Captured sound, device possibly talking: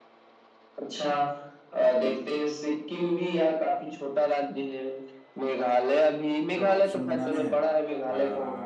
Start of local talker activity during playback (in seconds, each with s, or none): 6.5 s